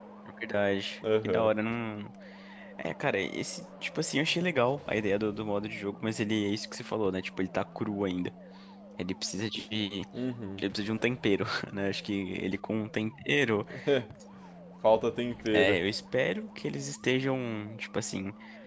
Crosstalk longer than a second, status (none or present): none